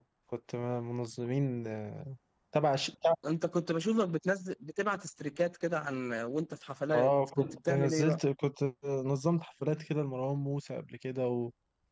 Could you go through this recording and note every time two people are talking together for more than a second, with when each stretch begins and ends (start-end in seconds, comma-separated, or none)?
6.9-8.2